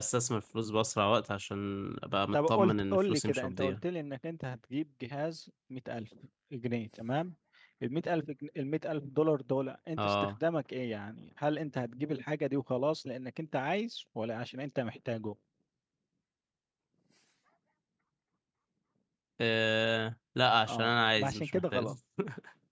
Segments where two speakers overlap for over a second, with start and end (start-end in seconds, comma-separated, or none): 2.3-3.8, 20.7-21.9